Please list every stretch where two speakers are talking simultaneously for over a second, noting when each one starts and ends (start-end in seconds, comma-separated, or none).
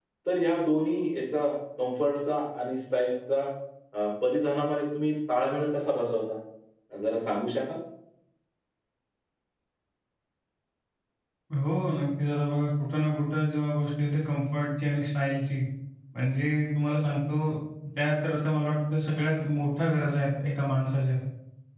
none